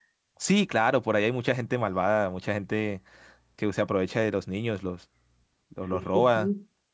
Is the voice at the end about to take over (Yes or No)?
Yes